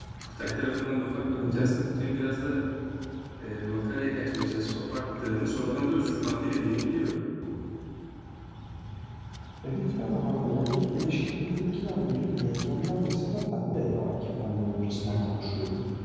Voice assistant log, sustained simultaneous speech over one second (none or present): none